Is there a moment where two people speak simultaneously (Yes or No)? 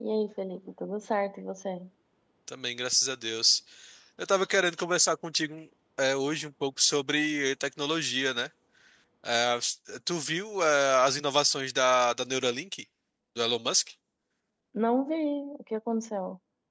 No